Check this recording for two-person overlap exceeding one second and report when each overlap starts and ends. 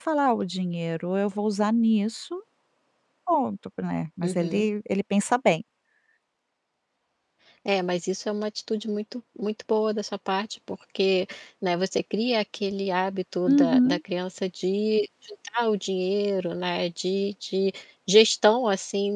none

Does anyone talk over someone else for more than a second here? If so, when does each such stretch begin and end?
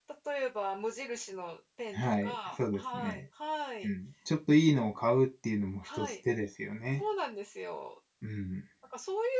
1.9-3.2

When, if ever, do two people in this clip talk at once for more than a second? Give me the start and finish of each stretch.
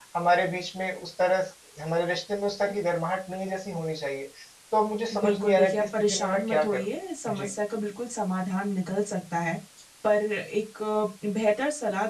5.2-6.9

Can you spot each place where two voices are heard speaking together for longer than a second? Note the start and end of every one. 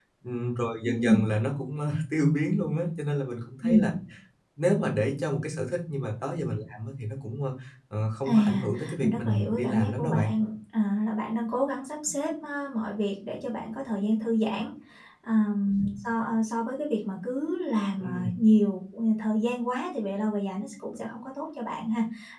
8.3-10.3

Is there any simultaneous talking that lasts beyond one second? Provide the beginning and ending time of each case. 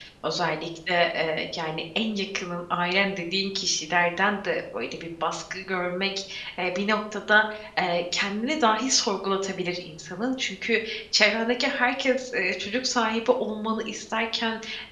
none

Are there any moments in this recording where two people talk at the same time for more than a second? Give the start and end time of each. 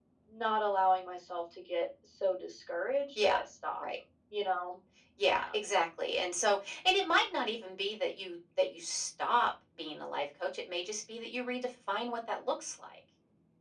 none

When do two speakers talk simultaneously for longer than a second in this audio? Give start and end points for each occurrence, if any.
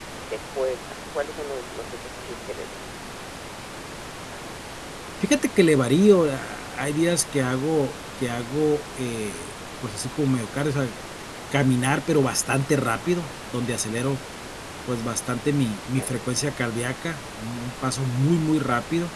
none

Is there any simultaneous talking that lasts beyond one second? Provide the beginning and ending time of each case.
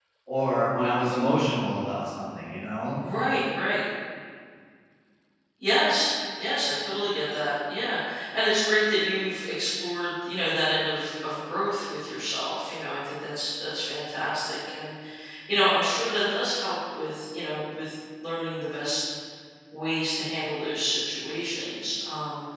none

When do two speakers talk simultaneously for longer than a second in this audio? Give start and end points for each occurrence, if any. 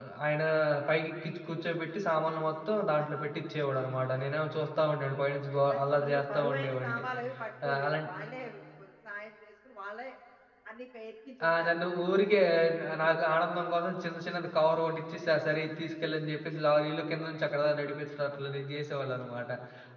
5.7-7.0

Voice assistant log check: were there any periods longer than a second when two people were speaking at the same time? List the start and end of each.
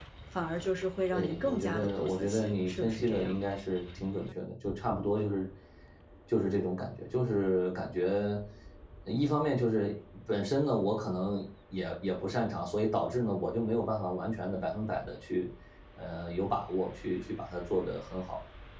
1.1-3.4

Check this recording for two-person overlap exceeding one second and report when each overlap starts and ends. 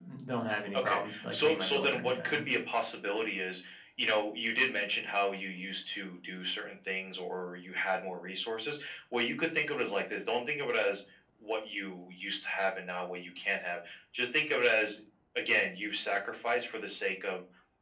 0.7-2.5

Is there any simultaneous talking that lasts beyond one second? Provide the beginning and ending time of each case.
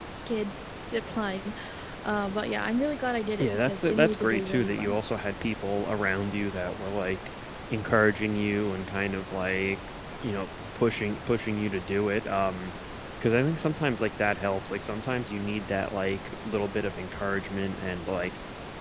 3.4-5.0

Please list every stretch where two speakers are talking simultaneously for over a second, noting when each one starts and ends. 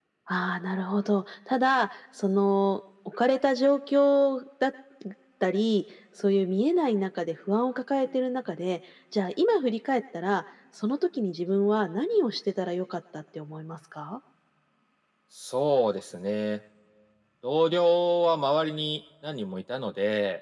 none

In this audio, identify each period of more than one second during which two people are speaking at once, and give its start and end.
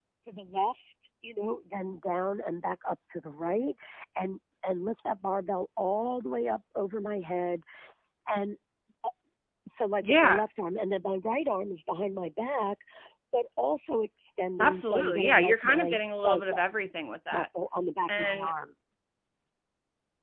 14.6-16.6

